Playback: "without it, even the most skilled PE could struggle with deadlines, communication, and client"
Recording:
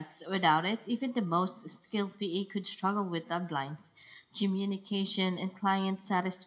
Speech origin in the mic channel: echo only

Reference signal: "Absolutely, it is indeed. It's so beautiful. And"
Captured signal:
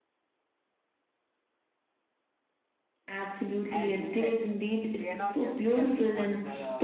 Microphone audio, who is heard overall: both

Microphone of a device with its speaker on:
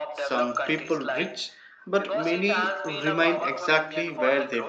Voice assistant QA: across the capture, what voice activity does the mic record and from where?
both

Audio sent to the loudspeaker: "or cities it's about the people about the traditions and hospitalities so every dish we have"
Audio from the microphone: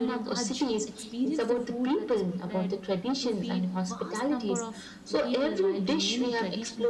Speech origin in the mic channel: both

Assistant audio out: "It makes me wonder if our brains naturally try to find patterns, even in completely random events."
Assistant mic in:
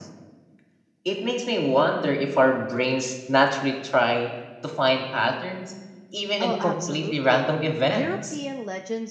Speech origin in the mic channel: both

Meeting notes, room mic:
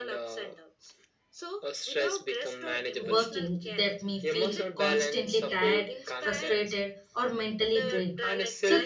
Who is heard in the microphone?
both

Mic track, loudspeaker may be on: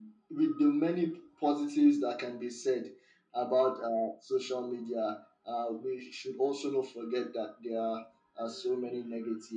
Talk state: echo only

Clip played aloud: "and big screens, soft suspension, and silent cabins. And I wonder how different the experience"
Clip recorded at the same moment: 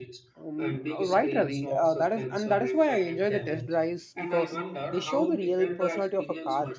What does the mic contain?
both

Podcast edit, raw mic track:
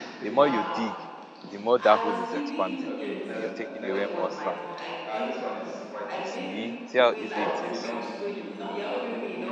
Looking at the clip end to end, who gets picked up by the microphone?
both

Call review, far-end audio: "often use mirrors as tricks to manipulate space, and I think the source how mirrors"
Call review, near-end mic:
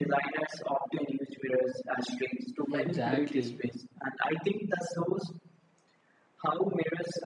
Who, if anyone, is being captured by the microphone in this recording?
both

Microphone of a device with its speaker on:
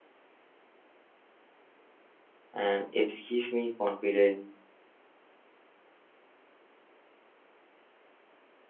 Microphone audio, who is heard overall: user only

